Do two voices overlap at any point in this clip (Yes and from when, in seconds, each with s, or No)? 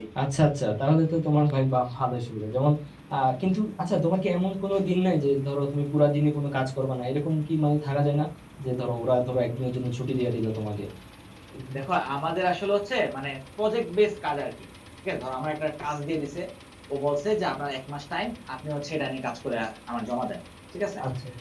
No